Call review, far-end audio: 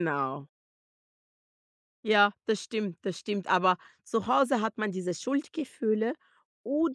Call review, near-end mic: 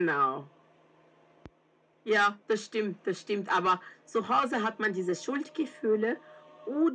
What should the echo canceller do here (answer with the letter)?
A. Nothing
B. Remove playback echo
B